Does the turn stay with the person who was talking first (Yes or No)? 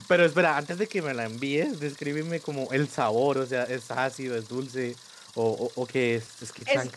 No